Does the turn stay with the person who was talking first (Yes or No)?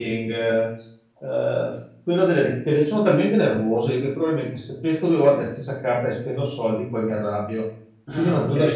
Yes